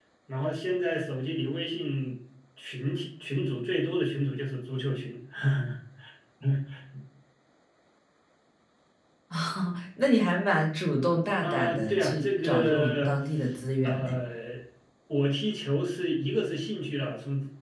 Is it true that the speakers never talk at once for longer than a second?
No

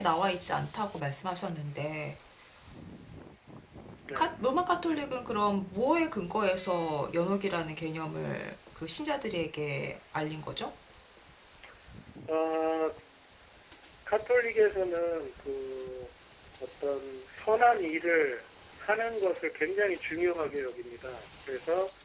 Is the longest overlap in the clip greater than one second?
No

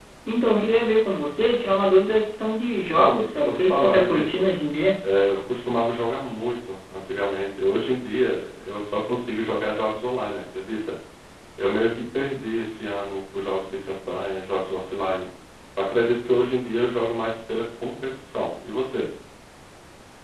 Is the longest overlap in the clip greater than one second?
Yes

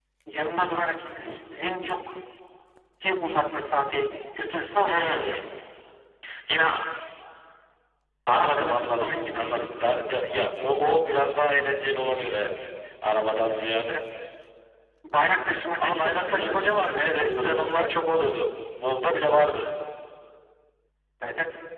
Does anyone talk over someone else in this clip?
Yes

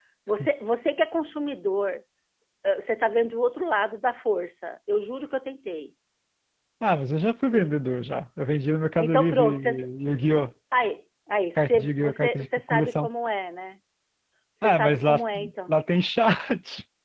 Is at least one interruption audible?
Yes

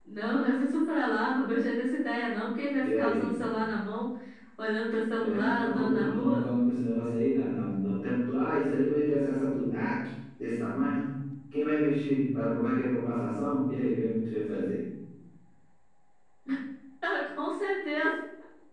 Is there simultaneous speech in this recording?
Yes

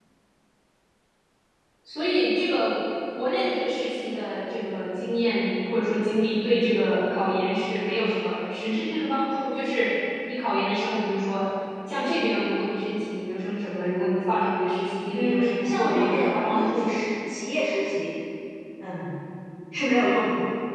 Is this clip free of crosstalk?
No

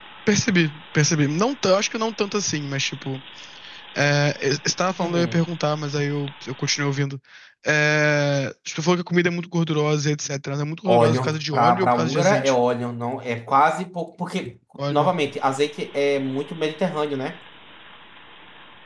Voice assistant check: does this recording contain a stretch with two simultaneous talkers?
Yes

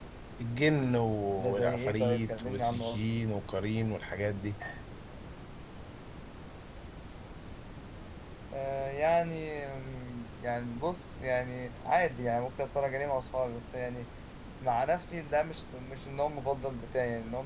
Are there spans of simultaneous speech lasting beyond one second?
Yes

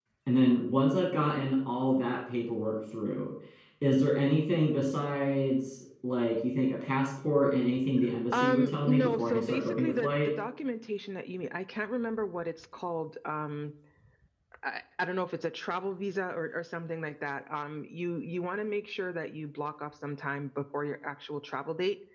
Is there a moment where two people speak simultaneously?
Yes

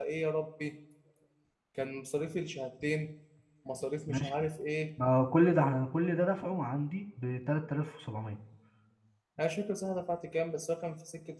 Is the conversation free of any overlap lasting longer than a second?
Yes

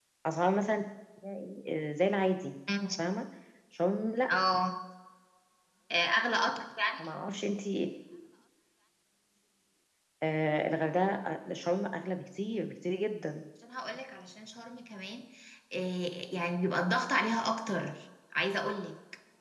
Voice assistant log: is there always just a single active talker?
Yes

